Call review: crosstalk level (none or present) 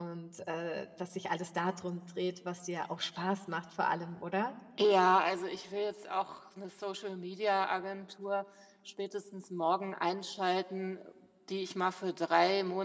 none